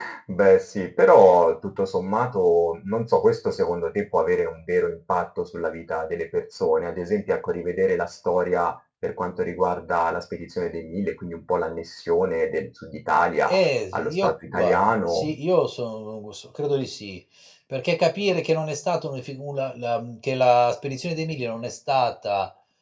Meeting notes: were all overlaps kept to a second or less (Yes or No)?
No